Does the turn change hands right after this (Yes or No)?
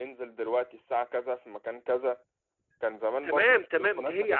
Yes